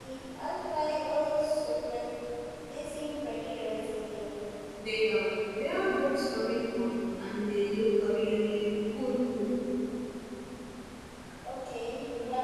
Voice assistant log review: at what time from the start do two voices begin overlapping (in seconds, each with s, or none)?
none